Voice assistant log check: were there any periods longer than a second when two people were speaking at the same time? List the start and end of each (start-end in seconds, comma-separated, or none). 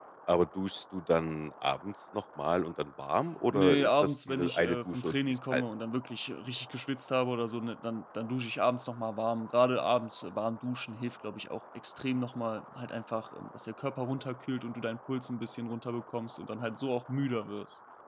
3.5-5.6